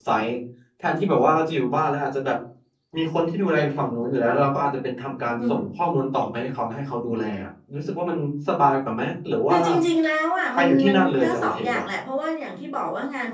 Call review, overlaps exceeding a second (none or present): present